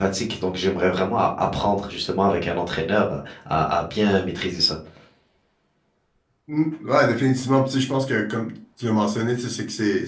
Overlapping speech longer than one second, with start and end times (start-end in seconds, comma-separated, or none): none